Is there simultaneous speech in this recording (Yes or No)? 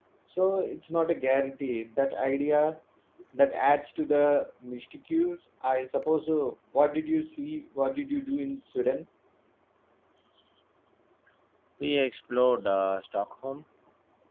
No